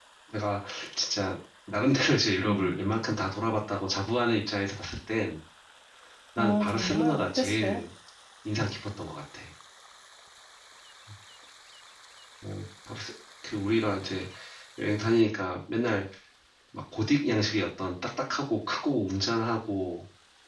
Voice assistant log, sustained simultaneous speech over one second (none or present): present